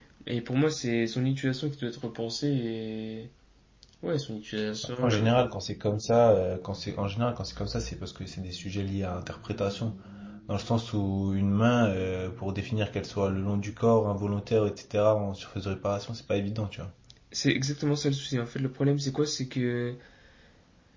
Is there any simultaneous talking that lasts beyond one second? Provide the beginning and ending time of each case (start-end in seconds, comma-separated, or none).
none